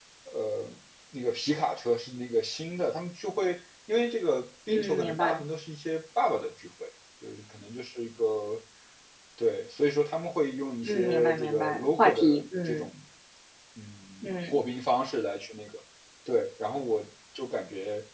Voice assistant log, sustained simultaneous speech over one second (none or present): present